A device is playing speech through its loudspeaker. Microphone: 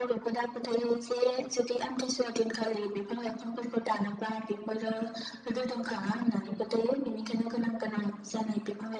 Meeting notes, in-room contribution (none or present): none